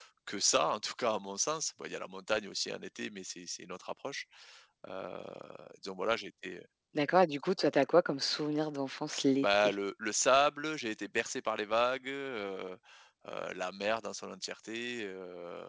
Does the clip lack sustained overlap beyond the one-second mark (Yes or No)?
Yes